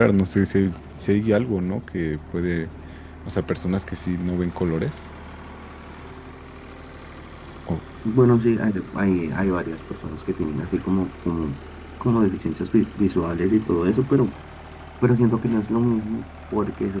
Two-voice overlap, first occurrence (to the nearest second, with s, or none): none